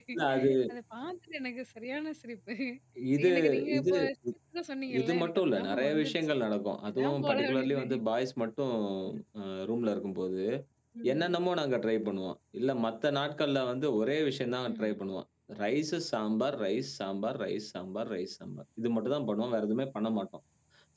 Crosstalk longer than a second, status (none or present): present